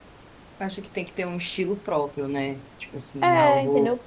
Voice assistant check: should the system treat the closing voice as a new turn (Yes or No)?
Yes